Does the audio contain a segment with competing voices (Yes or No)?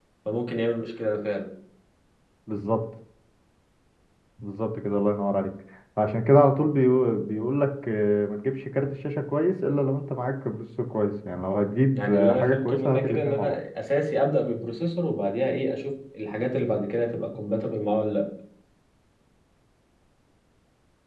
Yes